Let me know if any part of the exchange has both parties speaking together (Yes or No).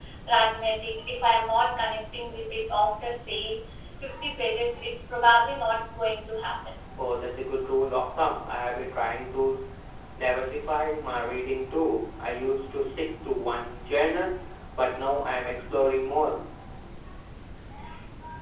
No